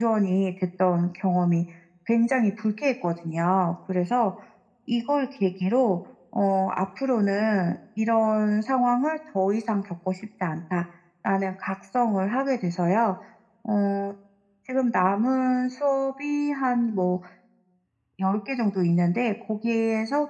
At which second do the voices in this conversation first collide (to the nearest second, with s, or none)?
none